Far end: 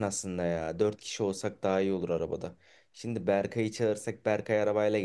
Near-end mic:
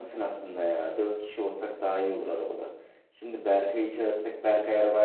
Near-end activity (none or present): none